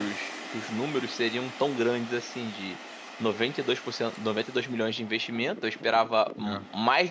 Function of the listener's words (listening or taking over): listening